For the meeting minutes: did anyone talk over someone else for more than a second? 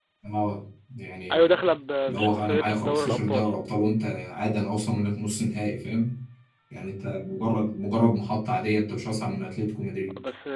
Yes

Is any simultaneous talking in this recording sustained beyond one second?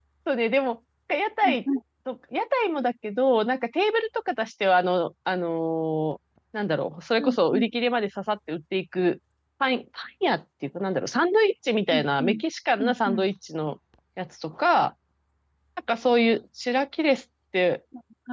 No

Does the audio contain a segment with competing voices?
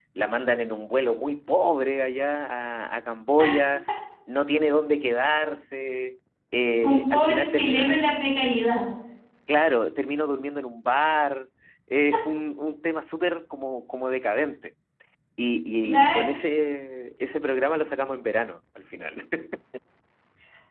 Yes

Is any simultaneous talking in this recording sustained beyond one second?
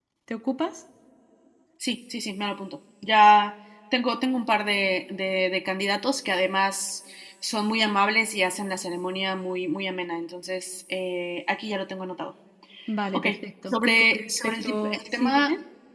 Yes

